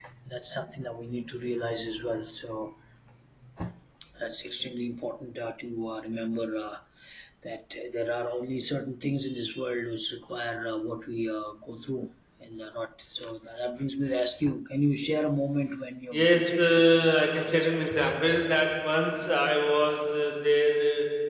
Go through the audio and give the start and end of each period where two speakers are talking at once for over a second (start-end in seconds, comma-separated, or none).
16.1-18.1